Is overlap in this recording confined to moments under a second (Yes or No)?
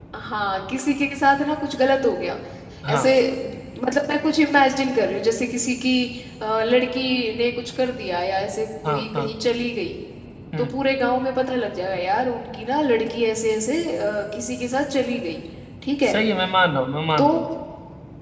Yes